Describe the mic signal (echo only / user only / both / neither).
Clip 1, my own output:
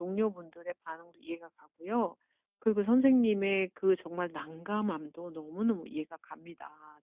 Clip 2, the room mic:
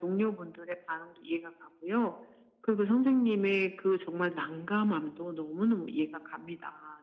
echo only